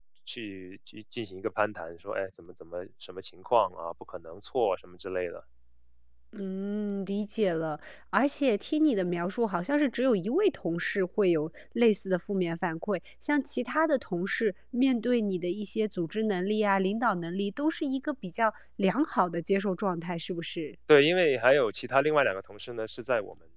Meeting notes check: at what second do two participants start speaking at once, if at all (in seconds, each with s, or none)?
none